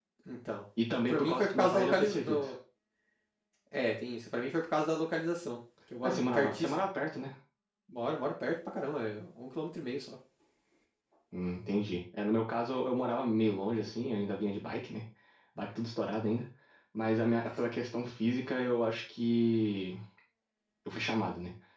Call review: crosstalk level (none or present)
present